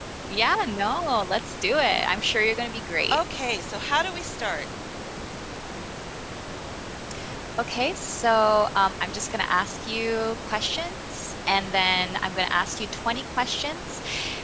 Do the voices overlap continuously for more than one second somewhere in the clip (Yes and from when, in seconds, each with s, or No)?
No